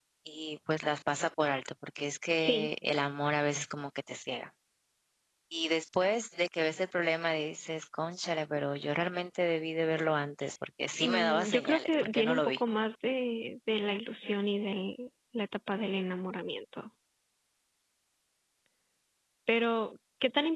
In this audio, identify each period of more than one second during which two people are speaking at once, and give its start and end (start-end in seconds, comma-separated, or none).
11.0-12.6